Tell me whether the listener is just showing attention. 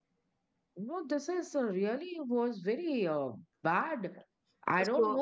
Yes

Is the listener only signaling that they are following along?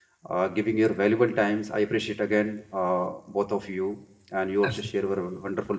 Yes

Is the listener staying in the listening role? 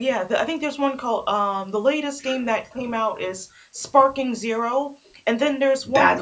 Yes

